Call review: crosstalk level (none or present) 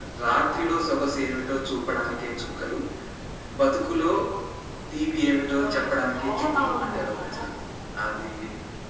present